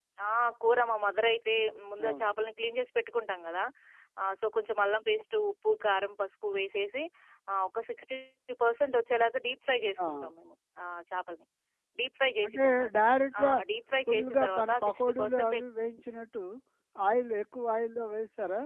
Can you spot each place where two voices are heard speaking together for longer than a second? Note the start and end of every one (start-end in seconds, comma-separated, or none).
14.1-15.6